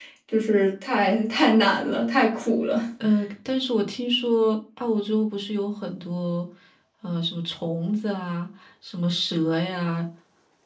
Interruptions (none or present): none